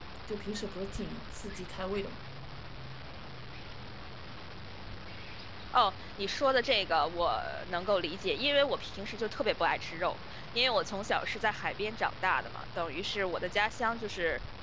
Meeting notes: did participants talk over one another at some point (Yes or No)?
No